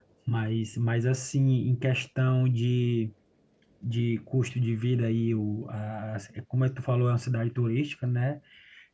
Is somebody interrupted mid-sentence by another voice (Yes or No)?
No